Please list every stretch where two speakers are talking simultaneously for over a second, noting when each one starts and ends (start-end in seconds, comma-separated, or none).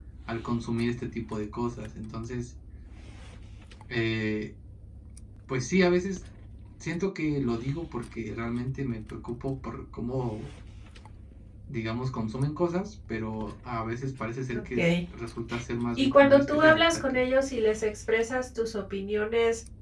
16.0-17.2